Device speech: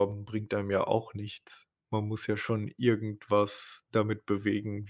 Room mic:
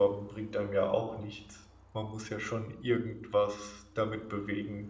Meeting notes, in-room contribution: none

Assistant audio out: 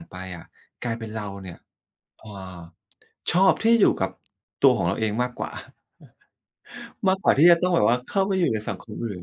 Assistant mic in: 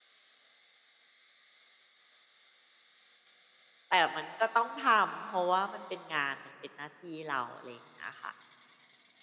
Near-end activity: present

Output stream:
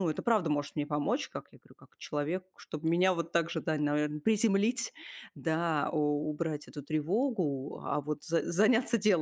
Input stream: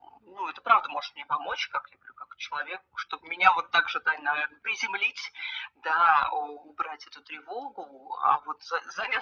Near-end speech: none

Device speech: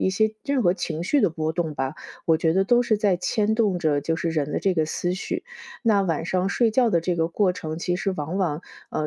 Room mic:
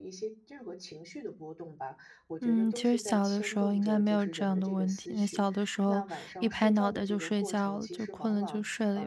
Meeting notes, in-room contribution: present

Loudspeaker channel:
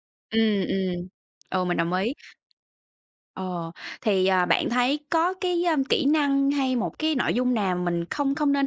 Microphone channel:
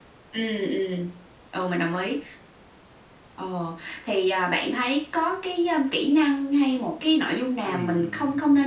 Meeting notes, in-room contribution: present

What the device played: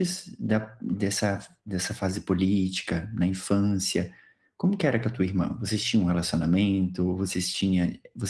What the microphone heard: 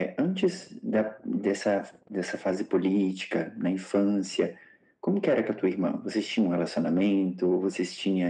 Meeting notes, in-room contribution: none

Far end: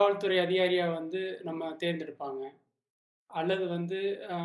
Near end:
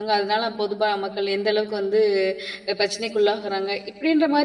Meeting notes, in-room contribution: present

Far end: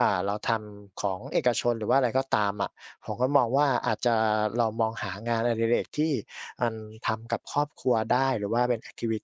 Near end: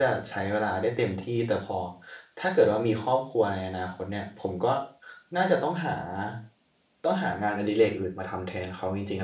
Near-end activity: present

